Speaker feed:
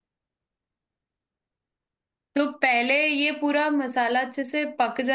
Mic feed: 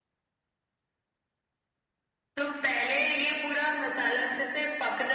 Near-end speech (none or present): none